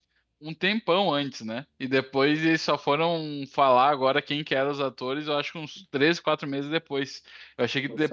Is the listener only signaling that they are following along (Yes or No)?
Yes